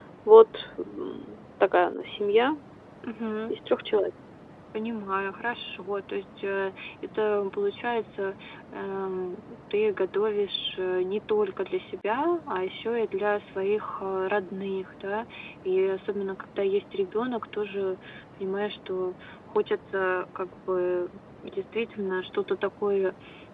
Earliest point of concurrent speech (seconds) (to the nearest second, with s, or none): none